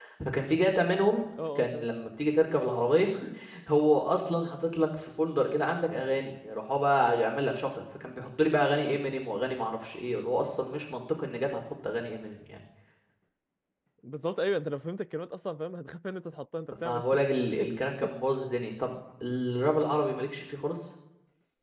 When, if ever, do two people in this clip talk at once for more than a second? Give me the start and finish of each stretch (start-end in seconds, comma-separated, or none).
none